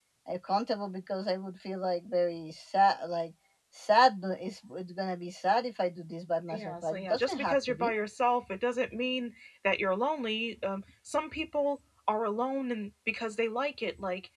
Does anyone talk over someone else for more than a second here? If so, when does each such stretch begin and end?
6.5-7.9

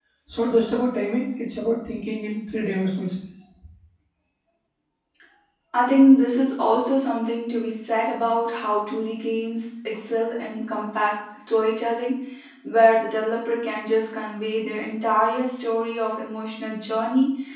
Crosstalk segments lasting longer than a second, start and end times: none

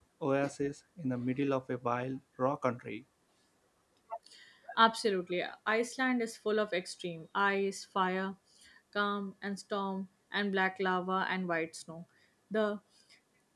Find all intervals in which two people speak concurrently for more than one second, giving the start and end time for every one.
none

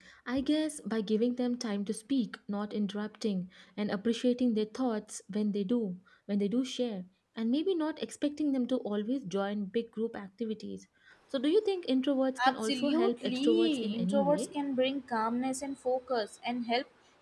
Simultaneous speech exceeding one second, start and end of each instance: 12.4-14.6

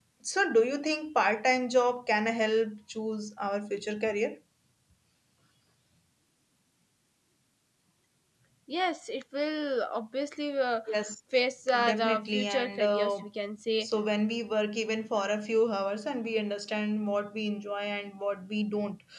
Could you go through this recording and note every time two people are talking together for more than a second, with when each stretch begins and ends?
11.8-13.2

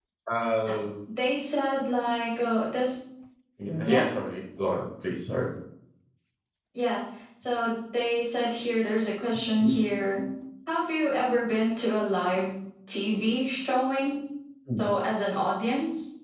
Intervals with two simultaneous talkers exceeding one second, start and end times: none

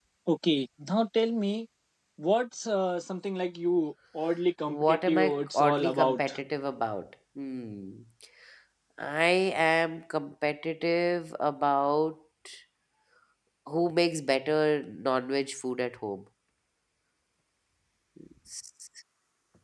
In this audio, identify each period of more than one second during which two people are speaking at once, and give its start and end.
4.7-6.4

